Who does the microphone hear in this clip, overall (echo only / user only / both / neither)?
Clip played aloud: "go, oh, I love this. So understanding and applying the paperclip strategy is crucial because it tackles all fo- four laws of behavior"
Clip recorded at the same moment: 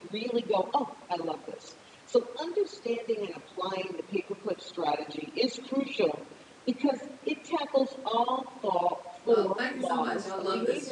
both